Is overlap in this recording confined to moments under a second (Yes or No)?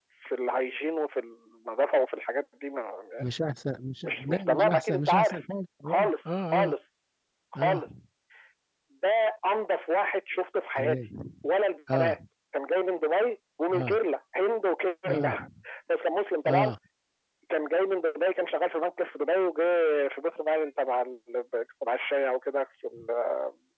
No